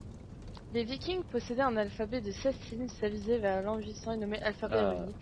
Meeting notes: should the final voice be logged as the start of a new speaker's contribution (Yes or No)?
No